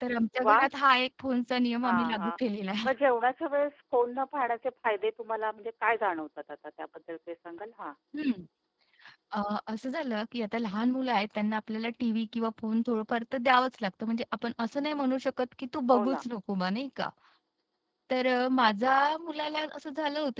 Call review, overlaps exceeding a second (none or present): none